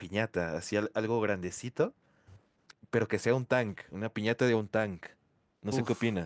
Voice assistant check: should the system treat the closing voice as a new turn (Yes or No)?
Yes